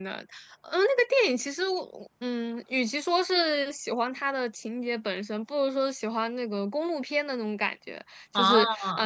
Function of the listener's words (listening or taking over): listening